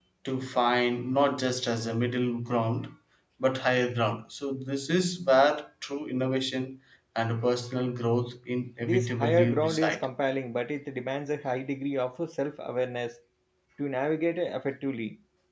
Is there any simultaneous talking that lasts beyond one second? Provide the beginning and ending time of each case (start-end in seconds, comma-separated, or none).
8.8-10.1